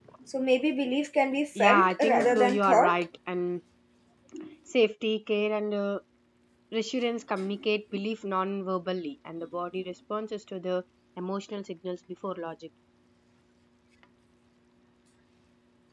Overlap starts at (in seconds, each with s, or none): 1.6 s